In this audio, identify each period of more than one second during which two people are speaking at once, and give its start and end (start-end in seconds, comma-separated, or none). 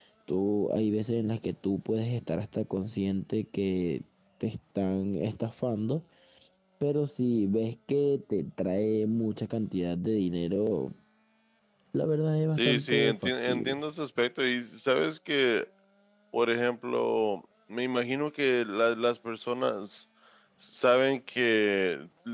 12.6-13.8